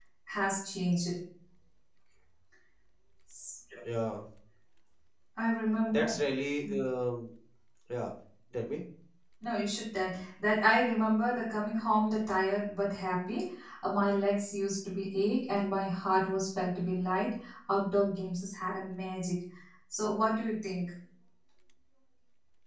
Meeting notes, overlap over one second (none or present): none